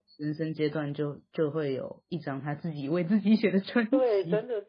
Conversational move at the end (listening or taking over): taking over